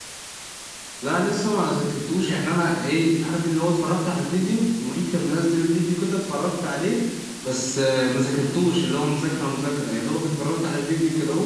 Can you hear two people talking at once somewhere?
No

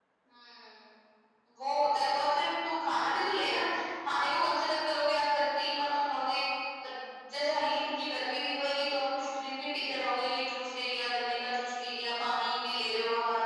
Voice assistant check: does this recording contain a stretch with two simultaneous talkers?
No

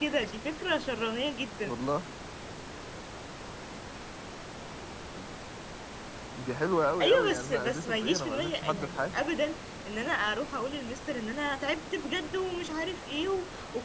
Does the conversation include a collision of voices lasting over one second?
Yes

